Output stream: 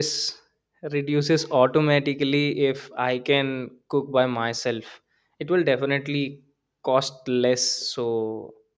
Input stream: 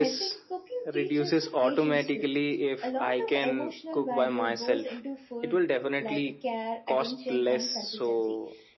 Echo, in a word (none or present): present